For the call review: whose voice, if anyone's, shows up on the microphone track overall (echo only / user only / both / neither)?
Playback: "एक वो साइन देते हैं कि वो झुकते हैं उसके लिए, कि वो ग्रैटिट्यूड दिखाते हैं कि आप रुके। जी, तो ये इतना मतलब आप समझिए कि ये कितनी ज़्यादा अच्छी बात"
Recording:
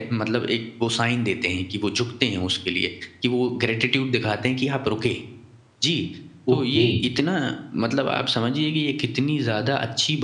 both